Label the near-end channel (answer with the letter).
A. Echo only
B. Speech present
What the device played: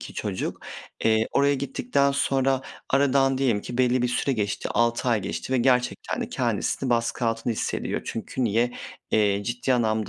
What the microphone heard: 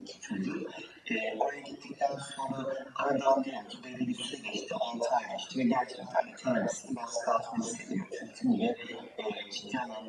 A